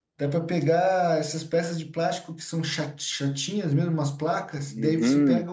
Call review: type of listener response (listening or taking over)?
listening